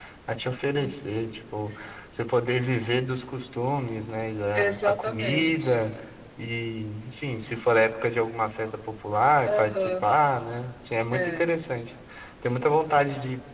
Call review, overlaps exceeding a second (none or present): present